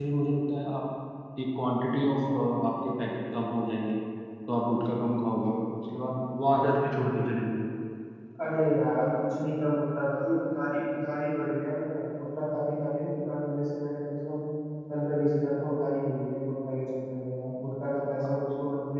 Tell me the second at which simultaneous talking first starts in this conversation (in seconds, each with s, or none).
none